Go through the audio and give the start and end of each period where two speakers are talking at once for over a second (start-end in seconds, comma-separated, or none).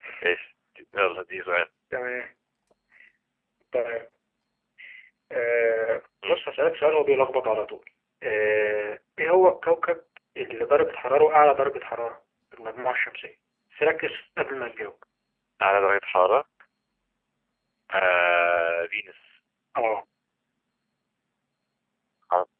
none